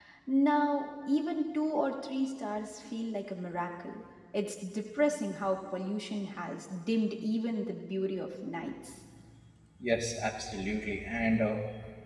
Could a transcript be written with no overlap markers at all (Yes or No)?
Yes